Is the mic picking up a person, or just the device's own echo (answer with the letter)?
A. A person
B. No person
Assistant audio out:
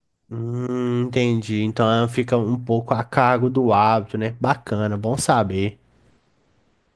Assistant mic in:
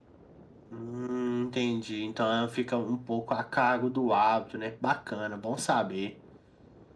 B